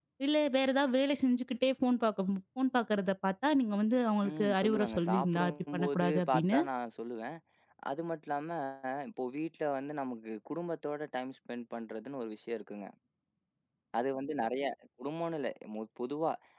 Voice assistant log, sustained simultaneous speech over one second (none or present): present